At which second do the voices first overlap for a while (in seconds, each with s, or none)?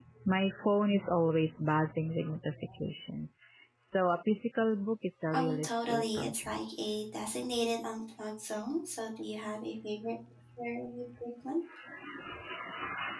5.3 s